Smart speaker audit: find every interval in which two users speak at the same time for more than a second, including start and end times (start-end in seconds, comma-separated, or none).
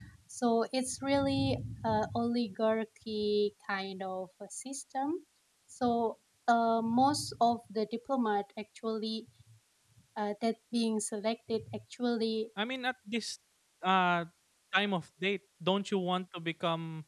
none